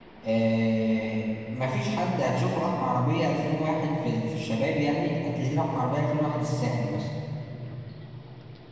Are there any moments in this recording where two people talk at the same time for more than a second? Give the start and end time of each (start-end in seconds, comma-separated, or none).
none